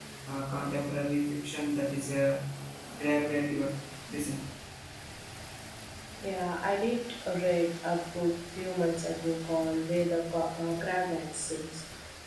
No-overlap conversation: Yes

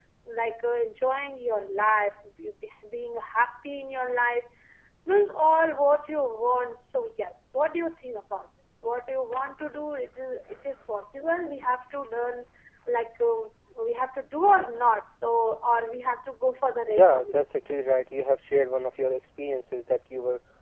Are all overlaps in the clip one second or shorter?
Yes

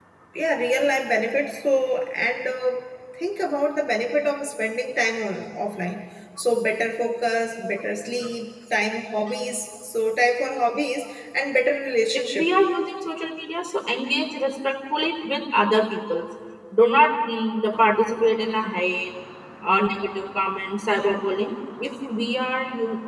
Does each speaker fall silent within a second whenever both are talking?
Yes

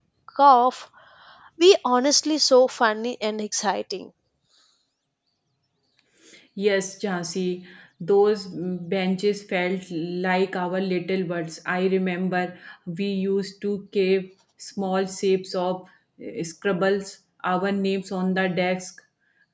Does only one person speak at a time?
Yes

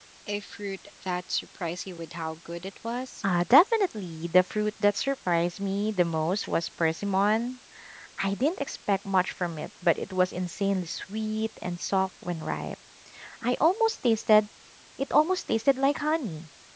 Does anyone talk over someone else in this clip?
No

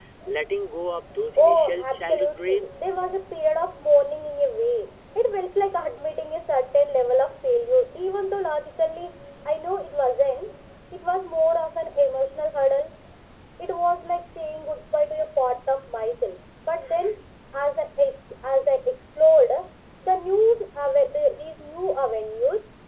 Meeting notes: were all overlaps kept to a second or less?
No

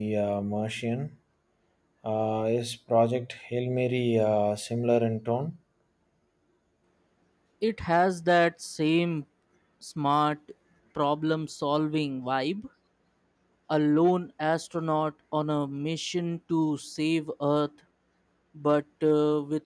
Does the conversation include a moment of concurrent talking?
No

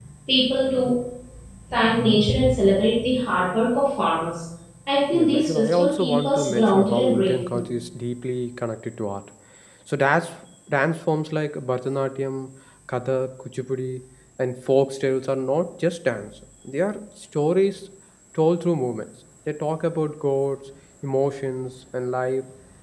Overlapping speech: Yes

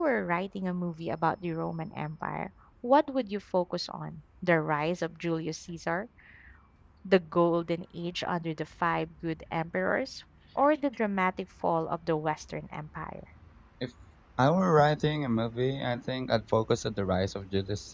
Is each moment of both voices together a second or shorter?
Yes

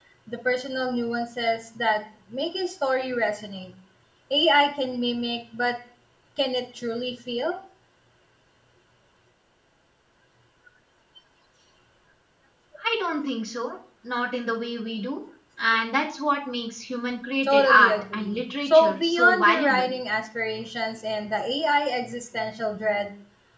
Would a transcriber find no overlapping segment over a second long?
No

